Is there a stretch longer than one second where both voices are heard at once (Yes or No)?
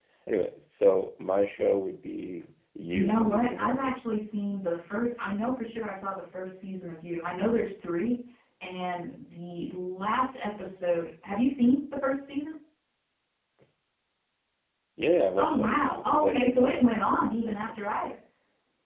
Yes